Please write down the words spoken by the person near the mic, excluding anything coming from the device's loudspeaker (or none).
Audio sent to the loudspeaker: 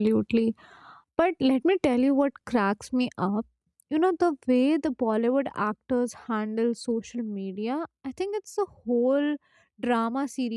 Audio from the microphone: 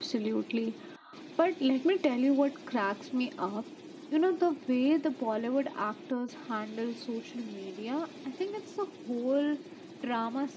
none